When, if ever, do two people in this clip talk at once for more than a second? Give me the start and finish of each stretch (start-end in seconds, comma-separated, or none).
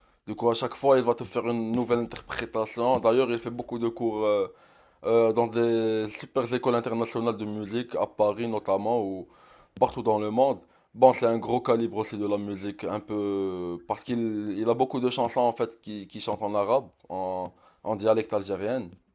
none